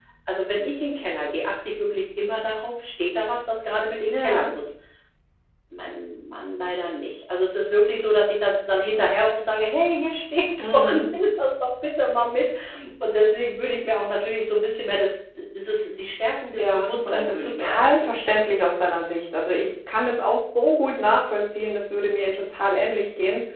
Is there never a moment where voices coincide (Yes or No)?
No